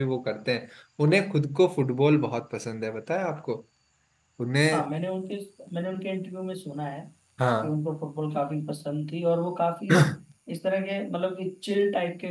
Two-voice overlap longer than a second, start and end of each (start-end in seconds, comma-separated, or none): none